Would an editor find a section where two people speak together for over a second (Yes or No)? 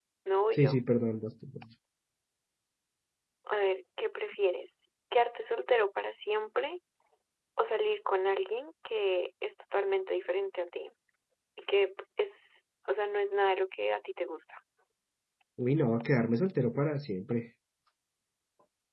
No